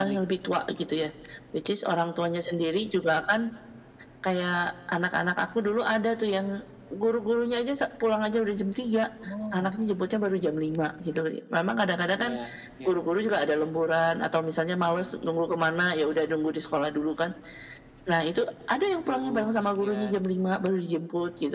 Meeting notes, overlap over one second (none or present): present